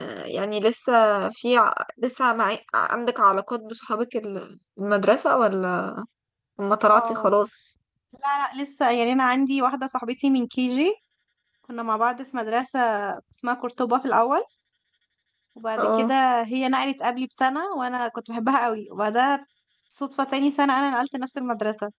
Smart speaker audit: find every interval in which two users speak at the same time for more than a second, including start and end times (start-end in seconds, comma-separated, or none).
none